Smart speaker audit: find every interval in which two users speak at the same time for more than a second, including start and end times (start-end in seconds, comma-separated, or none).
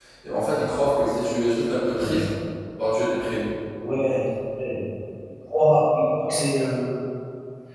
none